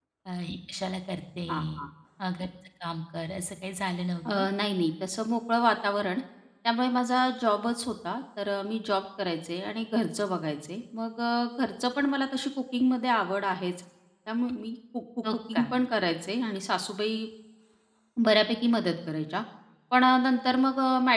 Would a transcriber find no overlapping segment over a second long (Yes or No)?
Yes